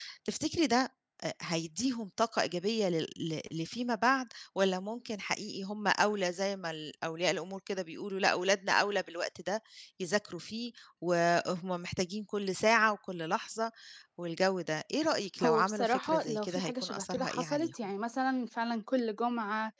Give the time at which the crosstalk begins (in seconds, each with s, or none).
15.4 s